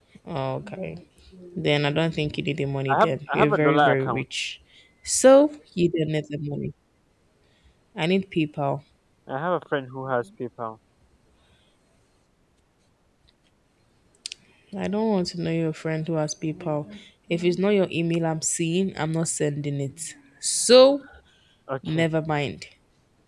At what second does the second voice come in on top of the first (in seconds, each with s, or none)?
2.9 s